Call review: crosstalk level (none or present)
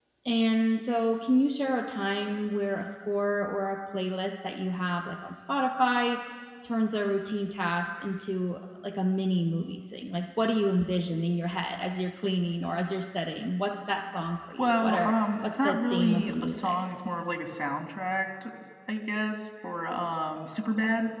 present